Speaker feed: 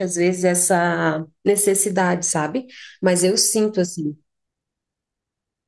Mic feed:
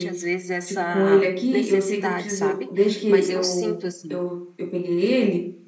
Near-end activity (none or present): present